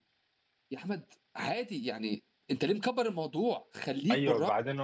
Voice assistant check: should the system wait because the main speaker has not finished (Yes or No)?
No